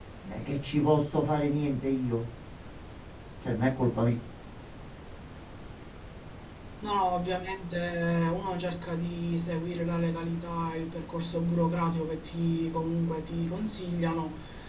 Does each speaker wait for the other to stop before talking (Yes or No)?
Yes